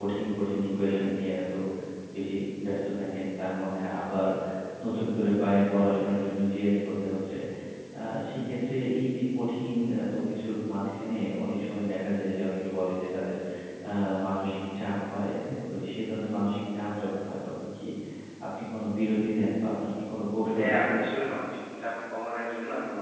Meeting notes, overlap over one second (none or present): none